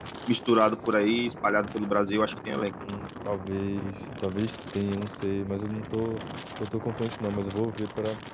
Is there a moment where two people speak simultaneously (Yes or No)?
No